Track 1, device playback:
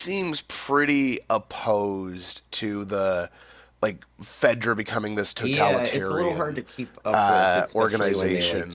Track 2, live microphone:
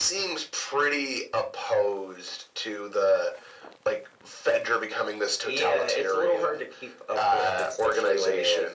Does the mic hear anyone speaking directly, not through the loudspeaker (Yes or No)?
No